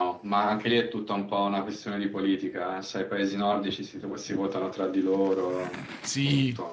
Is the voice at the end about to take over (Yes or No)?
Yes